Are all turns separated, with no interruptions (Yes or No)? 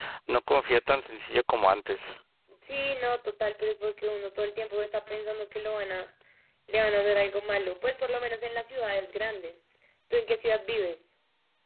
Yes